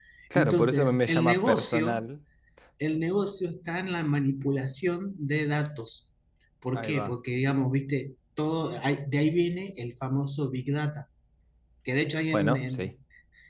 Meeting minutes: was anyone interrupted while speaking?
Yes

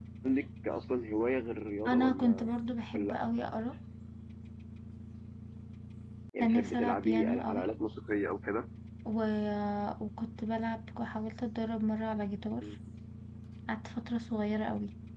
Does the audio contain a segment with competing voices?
Yes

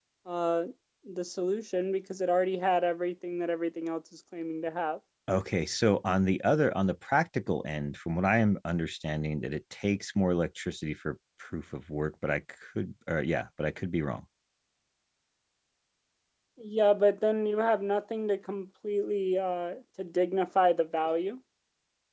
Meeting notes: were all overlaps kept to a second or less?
Yes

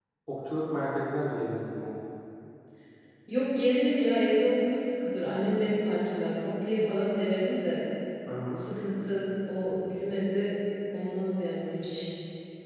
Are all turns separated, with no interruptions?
Yes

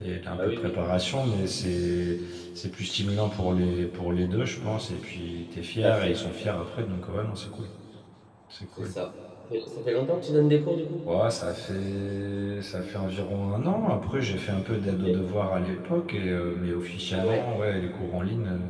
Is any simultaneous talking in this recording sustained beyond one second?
No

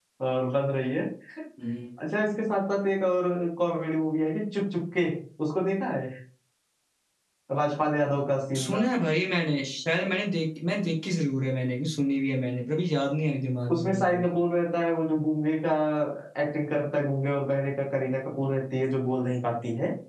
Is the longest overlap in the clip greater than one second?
No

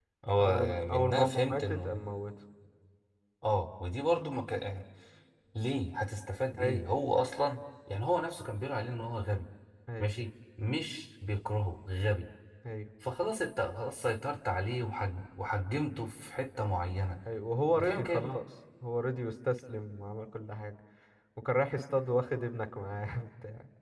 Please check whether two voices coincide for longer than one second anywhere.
Yes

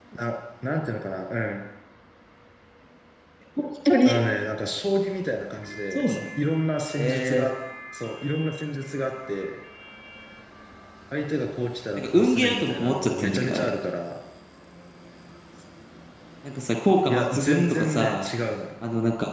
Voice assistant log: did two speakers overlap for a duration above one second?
Yes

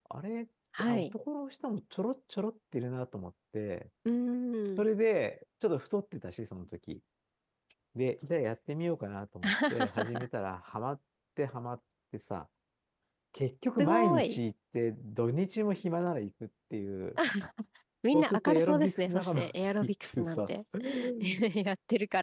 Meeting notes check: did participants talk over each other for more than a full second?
Yes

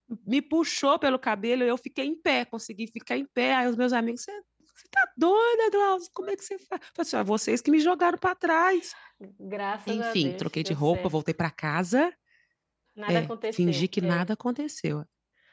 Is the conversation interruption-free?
No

